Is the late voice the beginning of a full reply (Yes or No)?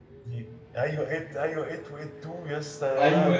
Yes